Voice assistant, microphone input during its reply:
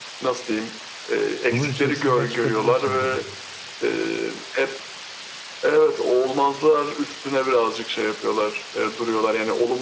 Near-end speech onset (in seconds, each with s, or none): 1.5 s